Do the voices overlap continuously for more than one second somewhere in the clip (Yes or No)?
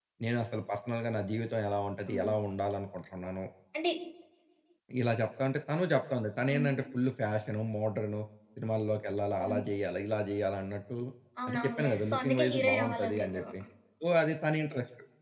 Yes